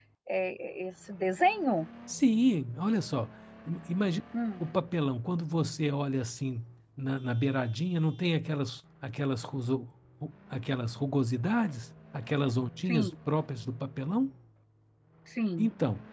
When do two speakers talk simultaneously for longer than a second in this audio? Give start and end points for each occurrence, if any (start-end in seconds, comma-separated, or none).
none